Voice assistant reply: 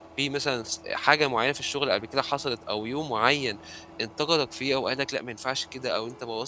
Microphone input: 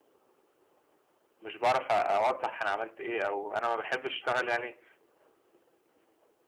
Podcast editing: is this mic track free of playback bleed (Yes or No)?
Yes